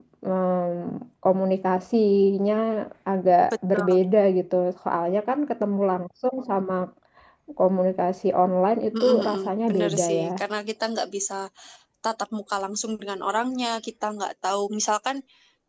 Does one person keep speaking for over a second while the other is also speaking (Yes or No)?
Yes